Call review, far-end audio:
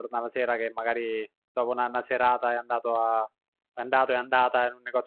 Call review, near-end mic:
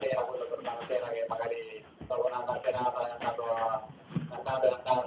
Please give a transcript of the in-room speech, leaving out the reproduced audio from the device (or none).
none